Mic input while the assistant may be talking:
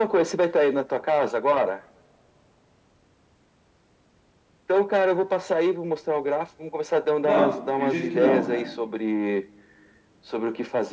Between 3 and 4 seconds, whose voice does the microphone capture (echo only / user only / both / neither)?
neither